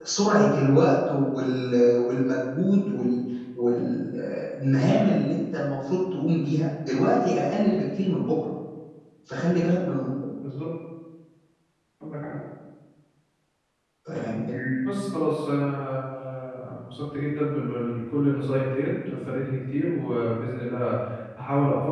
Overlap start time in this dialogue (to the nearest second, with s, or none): none